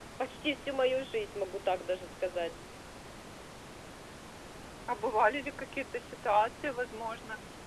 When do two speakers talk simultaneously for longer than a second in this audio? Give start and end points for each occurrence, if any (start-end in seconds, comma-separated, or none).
none